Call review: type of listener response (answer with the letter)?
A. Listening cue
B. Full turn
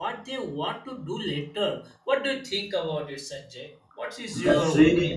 B